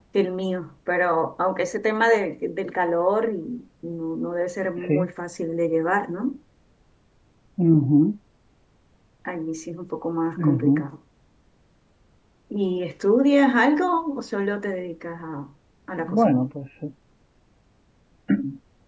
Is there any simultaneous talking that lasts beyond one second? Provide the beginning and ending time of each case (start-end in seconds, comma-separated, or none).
none